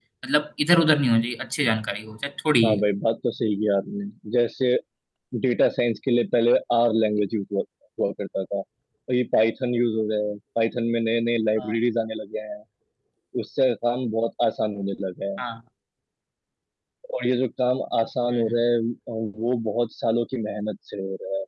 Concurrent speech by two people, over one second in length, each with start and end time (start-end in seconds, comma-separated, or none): none